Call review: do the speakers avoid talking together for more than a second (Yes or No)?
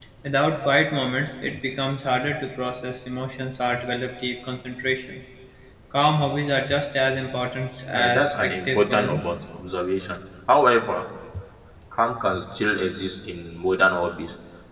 No